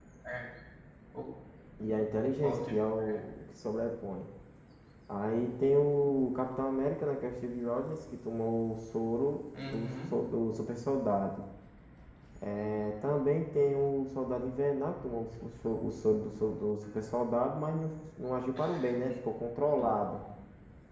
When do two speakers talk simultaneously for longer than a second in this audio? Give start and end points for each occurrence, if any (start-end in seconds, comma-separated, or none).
none